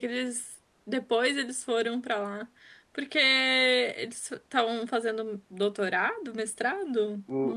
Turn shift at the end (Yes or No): Yes